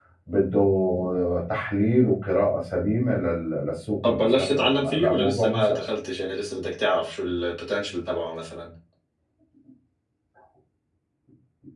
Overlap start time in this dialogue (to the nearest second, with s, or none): 4 s